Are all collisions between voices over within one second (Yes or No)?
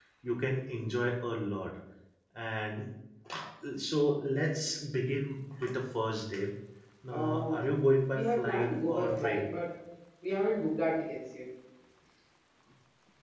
No